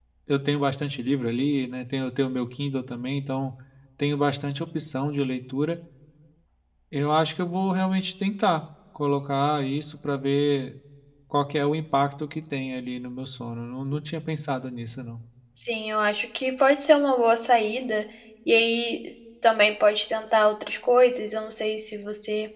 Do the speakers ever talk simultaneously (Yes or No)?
No